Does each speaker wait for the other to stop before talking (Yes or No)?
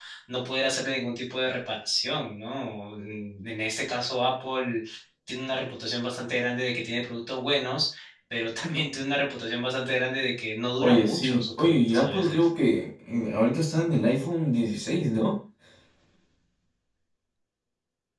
No